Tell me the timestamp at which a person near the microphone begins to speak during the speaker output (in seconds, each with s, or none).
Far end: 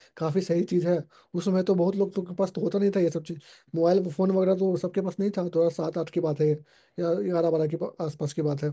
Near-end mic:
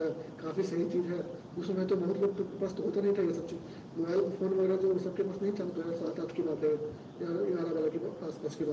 none